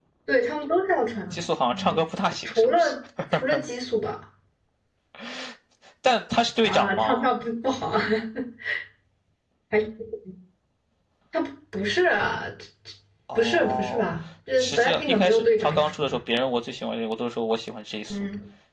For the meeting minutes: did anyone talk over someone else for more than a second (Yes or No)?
Yes